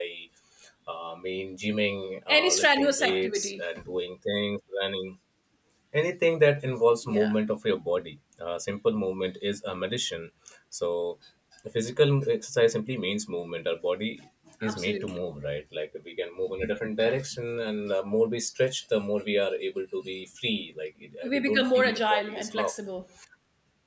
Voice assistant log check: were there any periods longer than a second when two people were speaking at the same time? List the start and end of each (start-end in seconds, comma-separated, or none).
2.3-3.6, 21.3-22.7